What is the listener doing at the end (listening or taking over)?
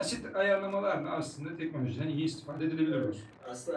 taking over